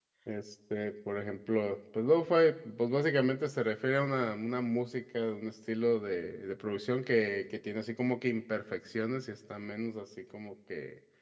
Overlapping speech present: No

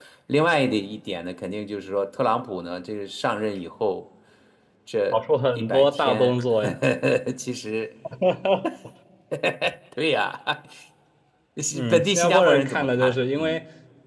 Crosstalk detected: Yes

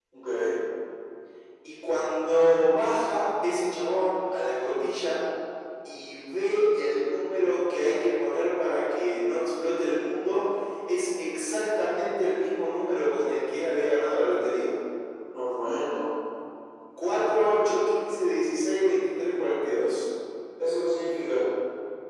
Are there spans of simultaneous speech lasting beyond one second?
No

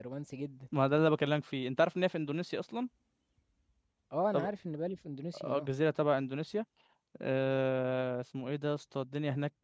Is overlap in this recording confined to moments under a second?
Yes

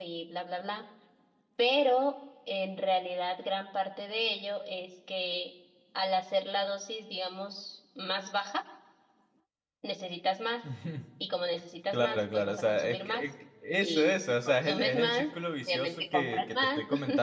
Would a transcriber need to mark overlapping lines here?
Yes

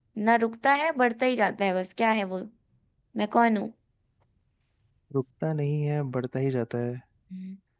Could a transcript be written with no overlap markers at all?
Yes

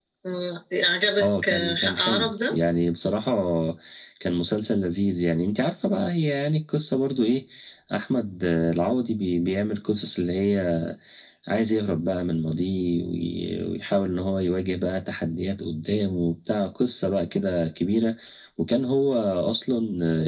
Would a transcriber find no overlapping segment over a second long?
No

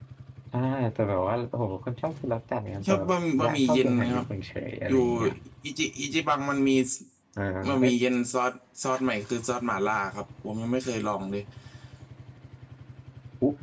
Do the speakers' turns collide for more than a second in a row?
Yes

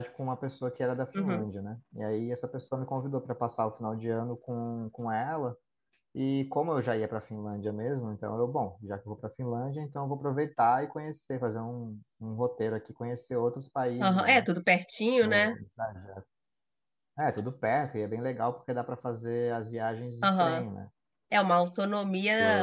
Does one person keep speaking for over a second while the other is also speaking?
No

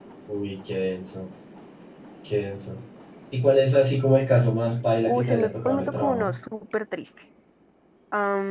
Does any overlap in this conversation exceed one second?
Yes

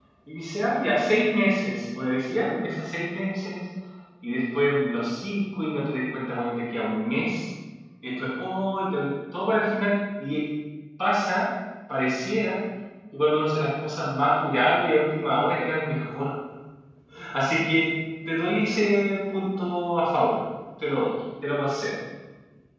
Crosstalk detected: No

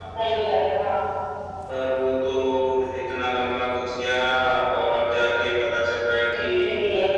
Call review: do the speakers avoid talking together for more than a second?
Yes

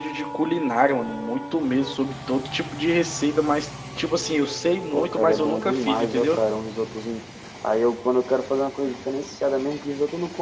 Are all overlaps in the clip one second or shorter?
No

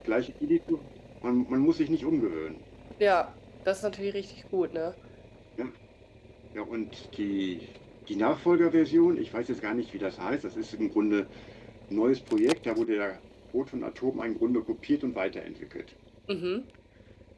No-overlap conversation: Yes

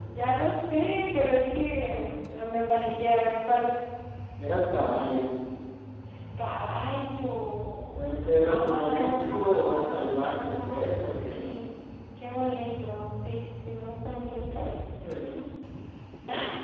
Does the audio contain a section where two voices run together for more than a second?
Yes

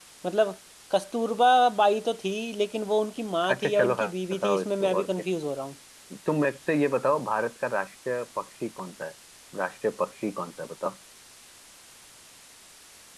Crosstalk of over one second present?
Yes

